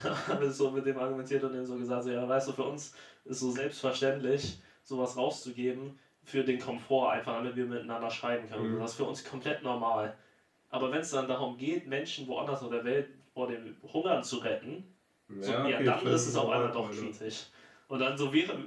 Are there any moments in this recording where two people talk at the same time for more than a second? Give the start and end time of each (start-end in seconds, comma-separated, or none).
15.4-17.1